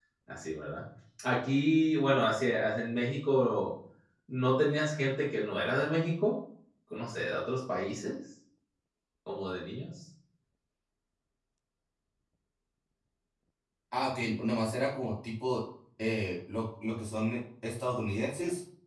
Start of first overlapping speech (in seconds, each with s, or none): none